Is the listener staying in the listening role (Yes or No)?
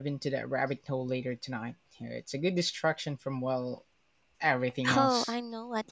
No